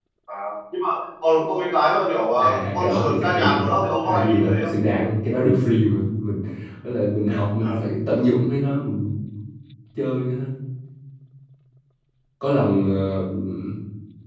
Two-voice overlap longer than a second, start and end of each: 2.4-4.7

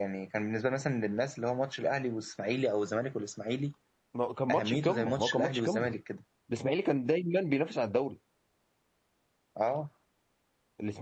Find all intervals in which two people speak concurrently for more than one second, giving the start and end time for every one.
4.5-5.9

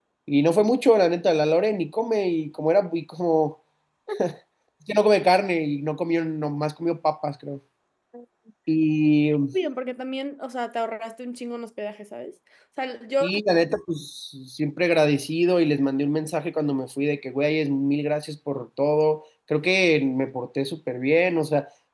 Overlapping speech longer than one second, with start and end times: none

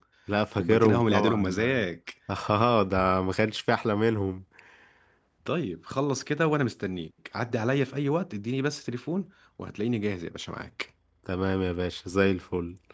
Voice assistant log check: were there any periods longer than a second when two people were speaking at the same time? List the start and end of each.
0.6-1.9

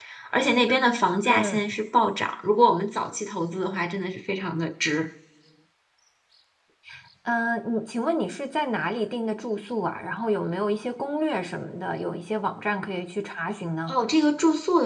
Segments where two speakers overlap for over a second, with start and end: none

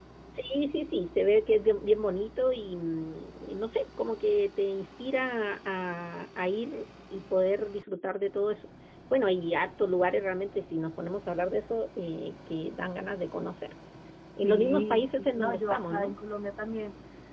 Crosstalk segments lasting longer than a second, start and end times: 14.4-16.1

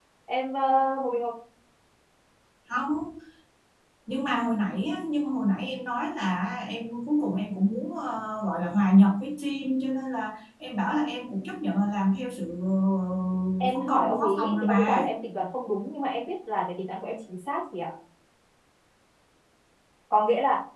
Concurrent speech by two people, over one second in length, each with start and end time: 13.7-15.0

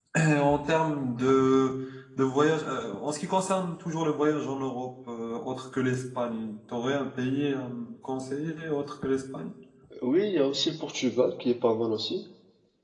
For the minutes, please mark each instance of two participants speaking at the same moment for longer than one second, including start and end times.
none

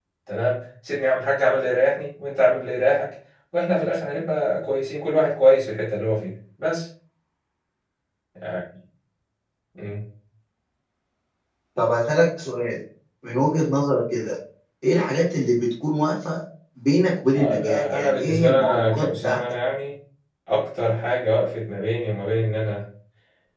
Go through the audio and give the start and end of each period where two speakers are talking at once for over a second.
17.3-19.4

